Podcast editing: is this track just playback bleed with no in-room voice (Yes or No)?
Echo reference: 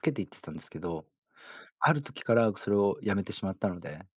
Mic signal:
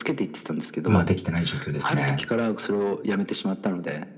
No